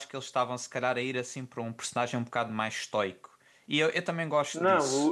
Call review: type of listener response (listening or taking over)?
taking over